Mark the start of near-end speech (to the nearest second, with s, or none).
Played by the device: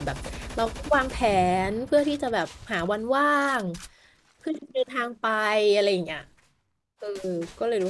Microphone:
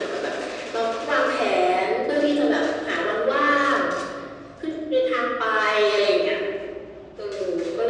none